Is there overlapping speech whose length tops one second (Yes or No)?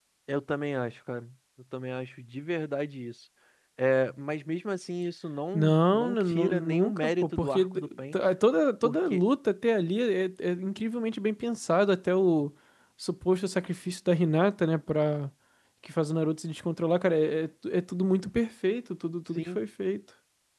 Yes